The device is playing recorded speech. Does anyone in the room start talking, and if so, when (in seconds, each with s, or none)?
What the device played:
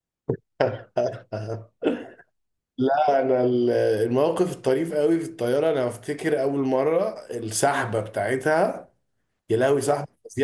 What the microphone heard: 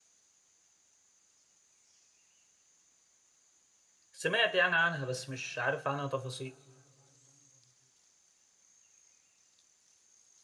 4.1 s